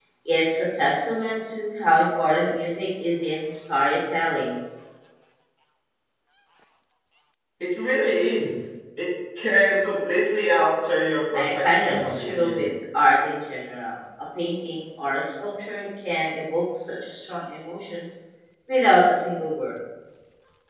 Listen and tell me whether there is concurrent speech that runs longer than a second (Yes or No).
Yes